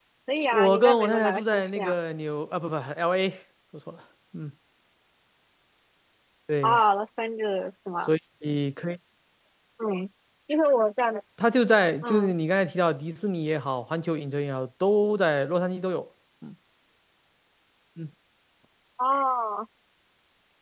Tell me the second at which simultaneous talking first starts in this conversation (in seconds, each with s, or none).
0.5 s